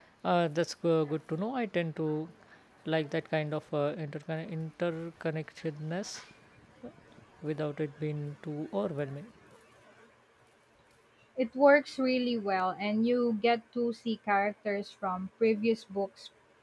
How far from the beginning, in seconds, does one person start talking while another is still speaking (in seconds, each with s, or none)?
none